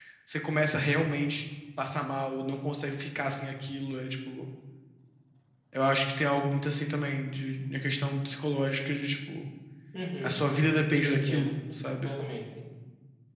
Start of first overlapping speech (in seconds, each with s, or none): 10.2 s